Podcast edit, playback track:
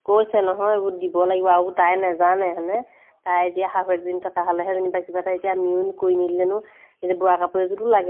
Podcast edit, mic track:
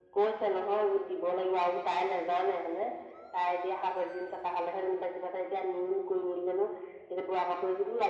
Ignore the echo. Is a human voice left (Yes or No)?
No